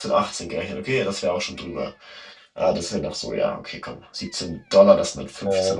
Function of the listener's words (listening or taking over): listening